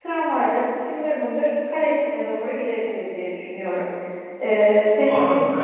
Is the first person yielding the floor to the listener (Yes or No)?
Yes